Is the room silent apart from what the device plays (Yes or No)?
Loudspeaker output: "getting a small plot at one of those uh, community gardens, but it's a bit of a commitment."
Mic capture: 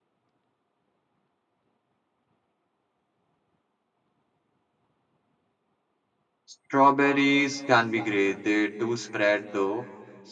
No